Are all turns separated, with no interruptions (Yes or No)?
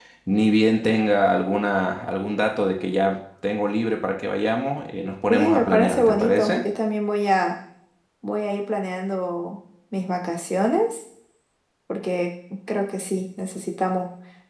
No